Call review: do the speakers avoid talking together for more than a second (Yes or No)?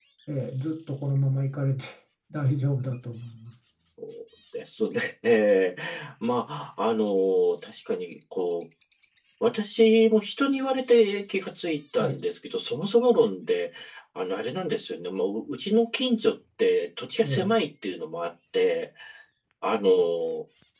Yes